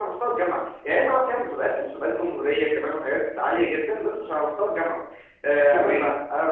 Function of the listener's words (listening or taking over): listening